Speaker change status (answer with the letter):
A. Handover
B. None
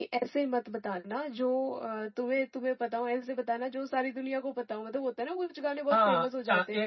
A